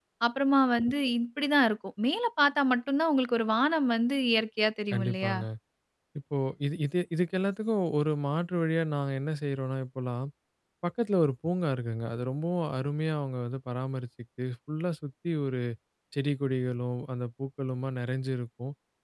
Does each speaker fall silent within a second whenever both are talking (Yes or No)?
Yes